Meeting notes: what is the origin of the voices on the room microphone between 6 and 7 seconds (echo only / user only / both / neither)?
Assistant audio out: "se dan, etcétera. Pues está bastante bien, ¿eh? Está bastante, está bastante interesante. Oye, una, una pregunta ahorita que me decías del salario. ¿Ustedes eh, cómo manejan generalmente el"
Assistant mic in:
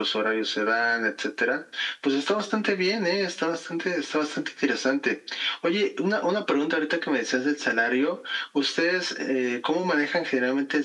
echo only